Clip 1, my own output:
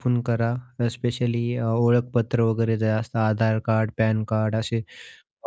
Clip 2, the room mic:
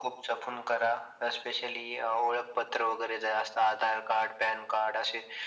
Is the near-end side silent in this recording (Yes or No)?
Yes